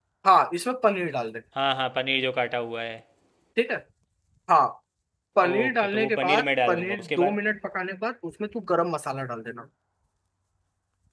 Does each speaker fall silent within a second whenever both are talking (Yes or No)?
No